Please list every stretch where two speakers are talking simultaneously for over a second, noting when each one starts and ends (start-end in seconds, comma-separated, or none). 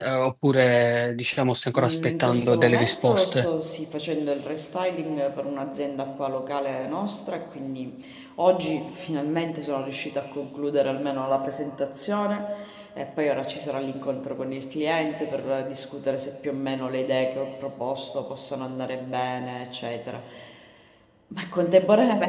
1.8-3.5